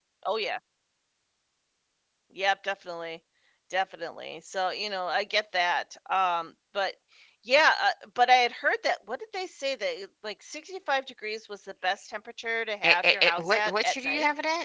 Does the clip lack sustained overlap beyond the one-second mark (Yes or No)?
No